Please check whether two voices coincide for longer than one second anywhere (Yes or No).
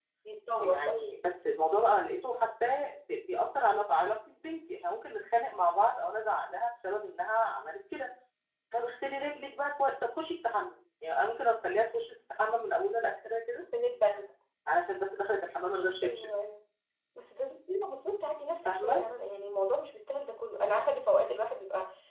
No